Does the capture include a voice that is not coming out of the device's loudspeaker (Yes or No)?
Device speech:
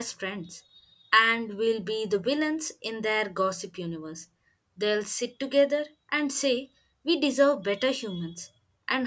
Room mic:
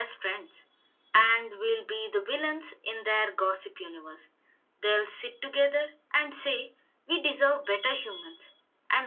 No